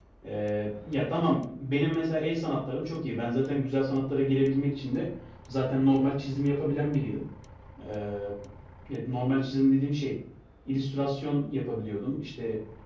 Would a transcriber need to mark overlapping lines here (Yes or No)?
No